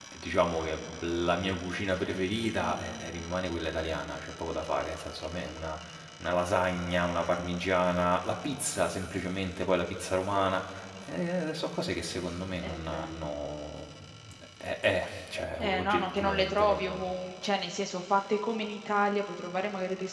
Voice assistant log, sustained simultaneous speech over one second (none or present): present